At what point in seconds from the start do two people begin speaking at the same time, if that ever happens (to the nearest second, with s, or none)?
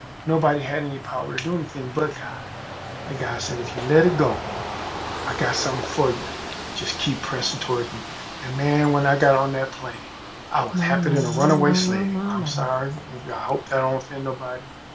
11 s